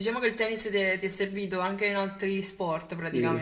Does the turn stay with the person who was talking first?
No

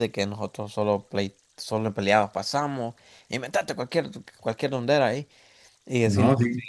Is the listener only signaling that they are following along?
Yes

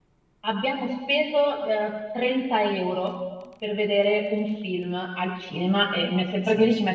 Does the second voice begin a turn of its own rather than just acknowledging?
No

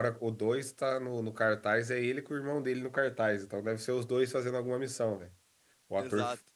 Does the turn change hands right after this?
No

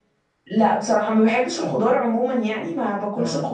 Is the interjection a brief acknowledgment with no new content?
Yes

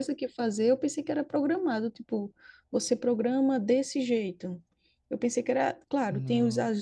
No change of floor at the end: Yes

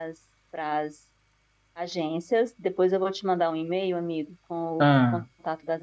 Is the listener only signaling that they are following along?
Yes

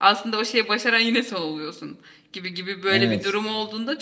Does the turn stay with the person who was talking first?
Yes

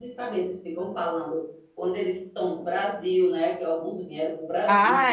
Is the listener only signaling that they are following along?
No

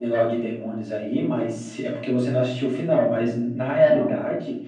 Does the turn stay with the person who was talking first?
Yes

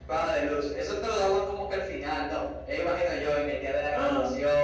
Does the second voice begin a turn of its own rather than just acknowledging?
No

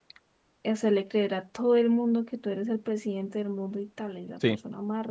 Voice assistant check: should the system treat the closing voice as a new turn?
Yes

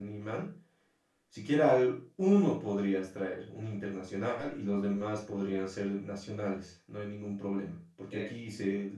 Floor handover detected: No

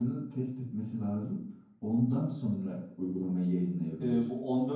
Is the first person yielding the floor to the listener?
Yes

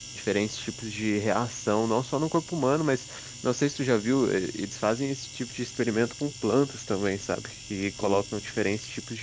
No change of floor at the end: Yes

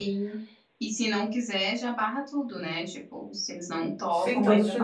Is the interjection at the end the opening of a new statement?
Yes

